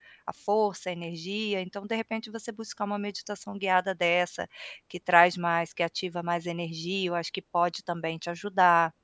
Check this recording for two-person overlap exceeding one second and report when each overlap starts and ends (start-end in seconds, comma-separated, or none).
none